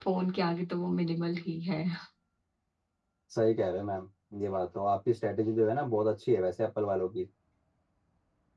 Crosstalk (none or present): none